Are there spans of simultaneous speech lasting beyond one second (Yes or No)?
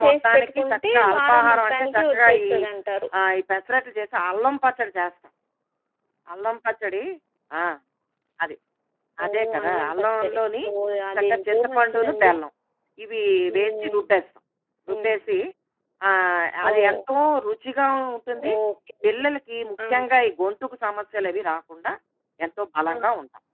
Yes